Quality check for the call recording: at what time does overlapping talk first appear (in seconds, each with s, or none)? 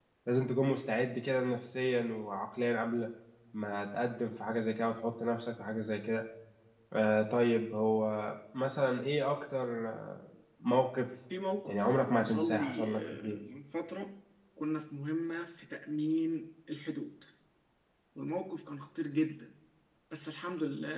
11.7 s